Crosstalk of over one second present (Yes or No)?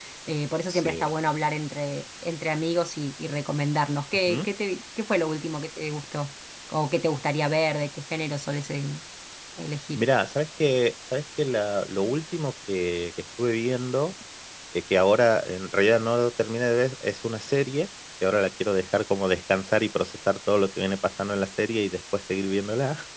No